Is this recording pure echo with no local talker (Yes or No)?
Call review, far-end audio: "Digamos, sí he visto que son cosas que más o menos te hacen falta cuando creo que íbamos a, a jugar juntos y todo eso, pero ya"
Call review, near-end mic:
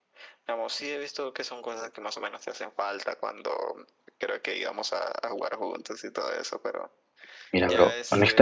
No